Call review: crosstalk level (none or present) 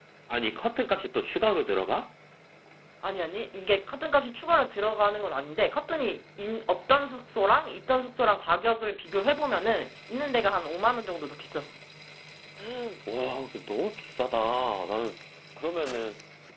none